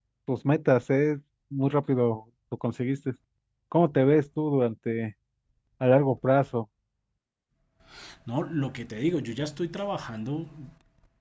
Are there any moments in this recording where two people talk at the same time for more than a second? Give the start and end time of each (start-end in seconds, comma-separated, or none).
none